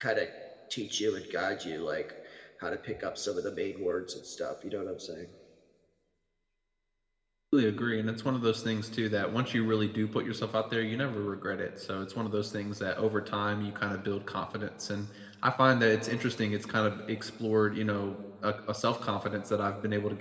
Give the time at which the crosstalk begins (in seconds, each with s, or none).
none